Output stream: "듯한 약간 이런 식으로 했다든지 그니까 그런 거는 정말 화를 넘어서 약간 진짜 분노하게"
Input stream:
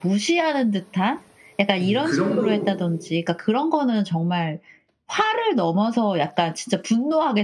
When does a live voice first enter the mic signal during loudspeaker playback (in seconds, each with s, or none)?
1.8 s